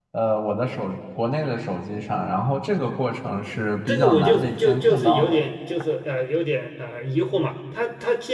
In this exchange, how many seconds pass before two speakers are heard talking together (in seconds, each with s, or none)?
3.9 s